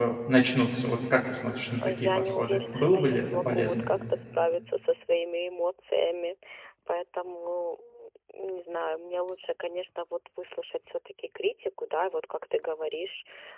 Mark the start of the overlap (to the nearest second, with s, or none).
2 s